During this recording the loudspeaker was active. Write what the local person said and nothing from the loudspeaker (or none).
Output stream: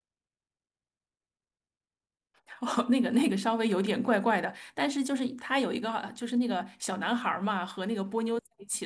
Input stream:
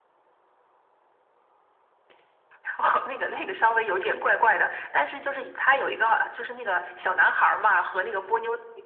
none